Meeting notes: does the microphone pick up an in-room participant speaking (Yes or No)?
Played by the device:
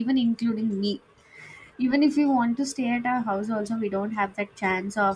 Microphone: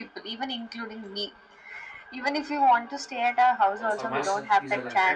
Yes